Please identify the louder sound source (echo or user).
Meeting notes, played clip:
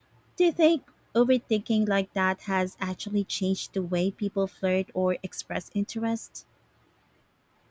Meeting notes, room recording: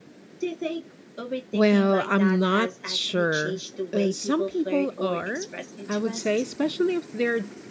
user